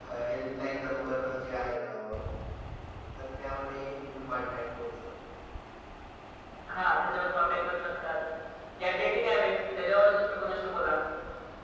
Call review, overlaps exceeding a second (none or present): none